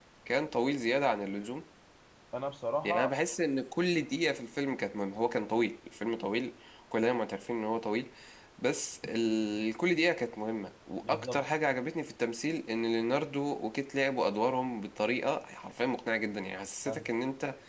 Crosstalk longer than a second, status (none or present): none